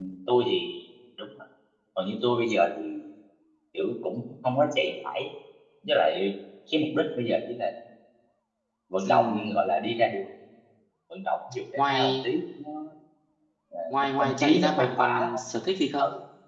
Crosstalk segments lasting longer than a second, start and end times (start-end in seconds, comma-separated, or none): 14.2-15.4